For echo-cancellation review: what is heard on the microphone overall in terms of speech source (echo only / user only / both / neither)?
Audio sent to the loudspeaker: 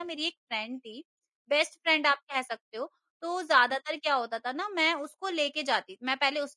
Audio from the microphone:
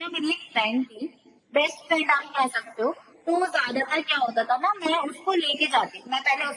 echo only